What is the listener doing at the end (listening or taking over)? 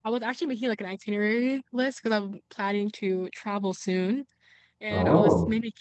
listening